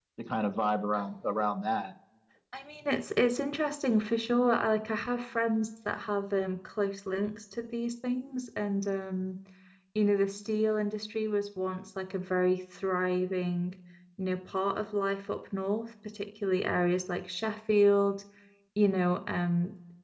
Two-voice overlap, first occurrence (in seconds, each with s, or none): none